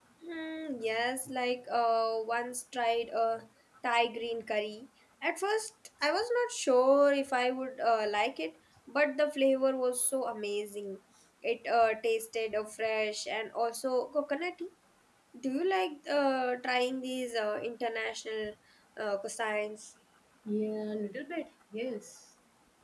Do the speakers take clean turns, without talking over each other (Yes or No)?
Yes